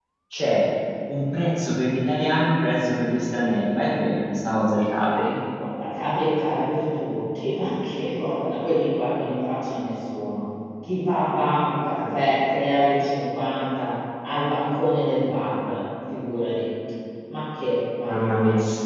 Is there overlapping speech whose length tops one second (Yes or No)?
No